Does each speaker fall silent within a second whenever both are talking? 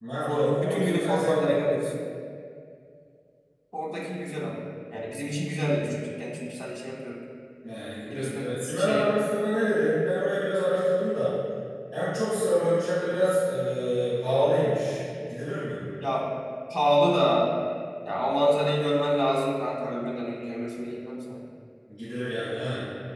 No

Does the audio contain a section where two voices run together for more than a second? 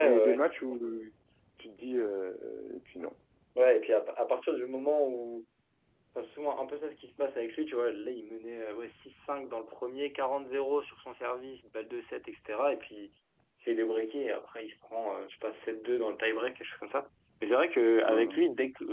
No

